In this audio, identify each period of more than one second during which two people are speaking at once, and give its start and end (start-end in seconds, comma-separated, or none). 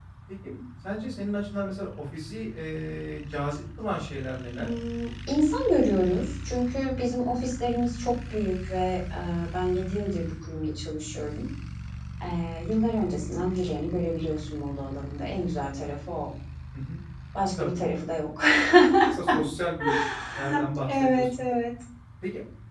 none